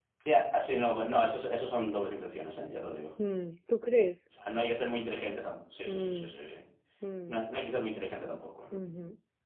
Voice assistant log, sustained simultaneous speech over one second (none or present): none